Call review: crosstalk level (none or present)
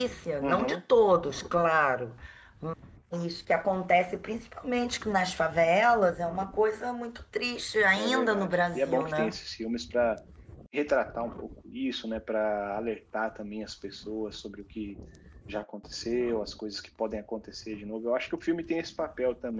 present